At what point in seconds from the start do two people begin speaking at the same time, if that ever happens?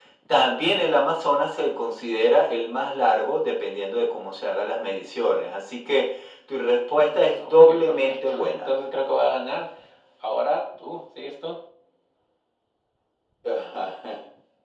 7.1 s

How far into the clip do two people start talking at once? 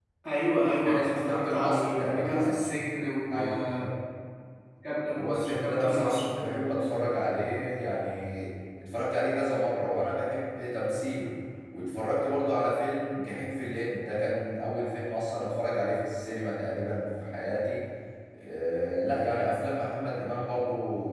0.8 s

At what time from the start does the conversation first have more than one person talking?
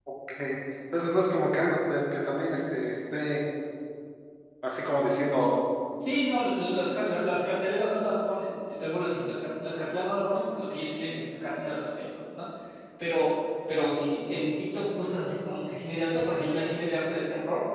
none

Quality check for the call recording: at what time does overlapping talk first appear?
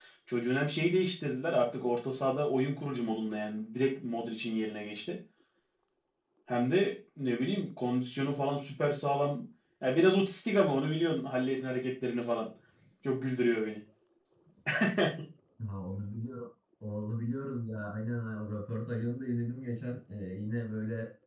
none

